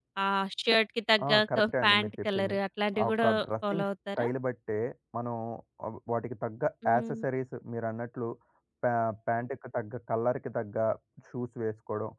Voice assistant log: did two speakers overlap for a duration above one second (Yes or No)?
Yes